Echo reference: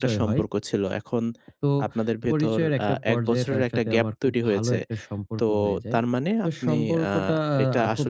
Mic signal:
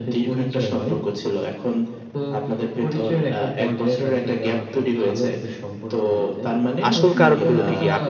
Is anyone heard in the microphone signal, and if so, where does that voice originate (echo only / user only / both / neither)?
both